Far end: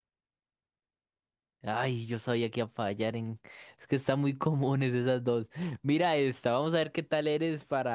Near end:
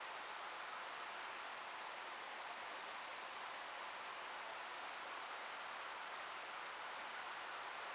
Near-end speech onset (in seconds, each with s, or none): none